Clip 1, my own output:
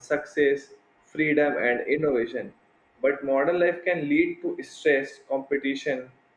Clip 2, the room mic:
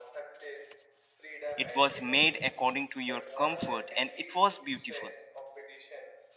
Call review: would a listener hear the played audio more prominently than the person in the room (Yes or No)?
No